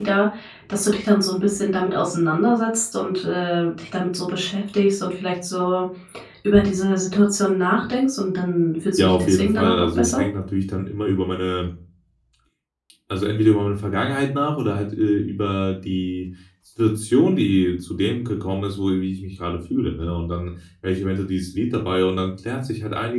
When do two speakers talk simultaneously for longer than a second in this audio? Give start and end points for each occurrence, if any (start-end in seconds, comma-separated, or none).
9.0-10.2